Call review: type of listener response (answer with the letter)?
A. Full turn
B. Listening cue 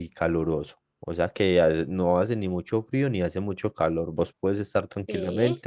B